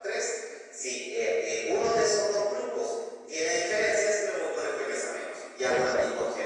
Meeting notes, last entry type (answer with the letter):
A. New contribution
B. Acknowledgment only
A